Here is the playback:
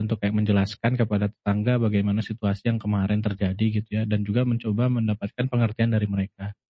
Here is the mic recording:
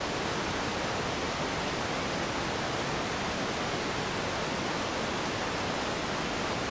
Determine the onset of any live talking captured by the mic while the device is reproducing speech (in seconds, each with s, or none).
none